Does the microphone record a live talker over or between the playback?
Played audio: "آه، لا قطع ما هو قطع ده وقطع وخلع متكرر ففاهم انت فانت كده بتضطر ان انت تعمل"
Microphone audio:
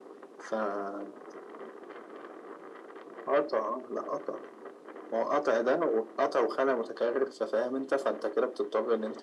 No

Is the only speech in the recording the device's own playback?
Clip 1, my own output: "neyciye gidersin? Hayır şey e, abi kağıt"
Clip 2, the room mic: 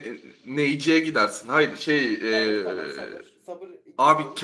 No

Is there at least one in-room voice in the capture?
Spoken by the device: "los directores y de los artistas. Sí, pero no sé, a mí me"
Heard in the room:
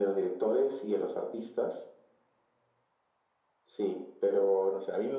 No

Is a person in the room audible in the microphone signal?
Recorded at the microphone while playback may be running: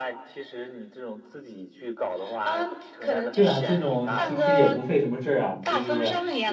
Yes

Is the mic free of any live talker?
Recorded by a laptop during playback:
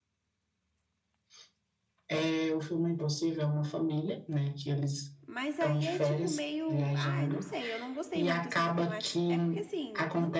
No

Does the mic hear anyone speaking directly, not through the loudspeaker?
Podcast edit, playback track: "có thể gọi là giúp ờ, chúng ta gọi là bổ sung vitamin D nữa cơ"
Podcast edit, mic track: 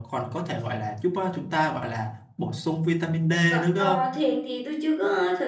Yes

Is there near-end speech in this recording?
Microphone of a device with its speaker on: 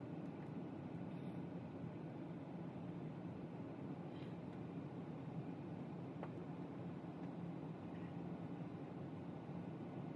No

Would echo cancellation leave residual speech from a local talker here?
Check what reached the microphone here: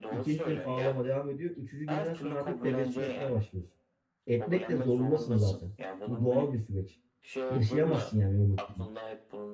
Yes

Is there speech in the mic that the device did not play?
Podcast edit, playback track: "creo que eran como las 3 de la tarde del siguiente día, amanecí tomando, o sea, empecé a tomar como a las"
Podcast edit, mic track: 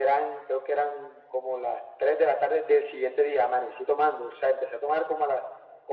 No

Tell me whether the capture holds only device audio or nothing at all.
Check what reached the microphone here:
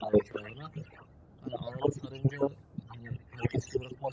Yes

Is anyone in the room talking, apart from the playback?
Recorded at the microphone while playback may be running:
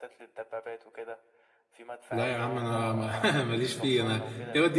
Yes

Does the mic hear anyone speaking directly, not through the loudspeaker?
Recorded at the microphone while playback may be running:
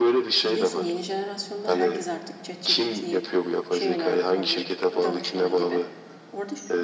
Yes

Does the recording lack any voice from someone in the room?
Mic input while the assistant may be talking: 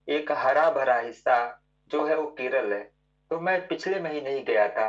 Yes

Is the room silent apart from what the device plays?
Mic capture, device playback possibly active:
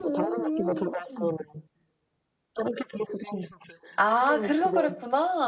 No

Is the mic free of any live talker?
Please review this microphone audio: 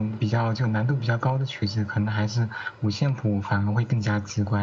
Yes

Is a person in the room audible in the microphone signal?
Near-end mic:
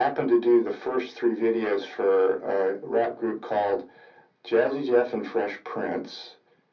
No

